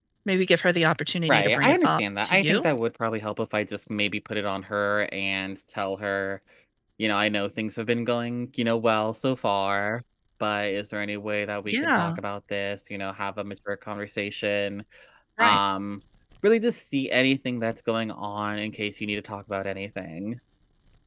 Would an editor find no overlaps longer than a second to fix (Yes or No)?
No